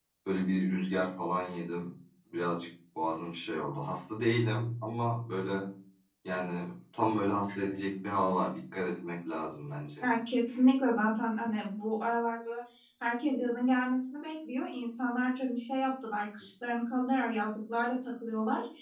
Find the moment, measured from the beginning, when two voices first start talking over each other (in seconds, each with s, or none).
none